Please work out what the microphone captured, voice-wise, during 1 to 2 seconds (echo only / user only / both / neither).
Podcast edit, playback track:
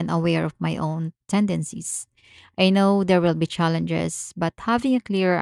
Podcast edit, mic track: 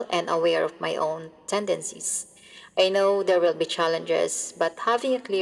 echo only